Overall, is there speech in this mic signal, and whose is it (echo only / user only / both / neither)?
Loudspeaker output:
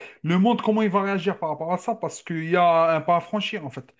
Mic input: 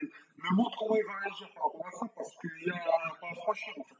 echo only